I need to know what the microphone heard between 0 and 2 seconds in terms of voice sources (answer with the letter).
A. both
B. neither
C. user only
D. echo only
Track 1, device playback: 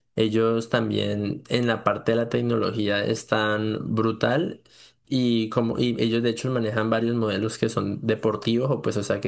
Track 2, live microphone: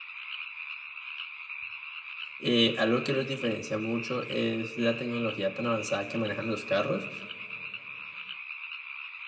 B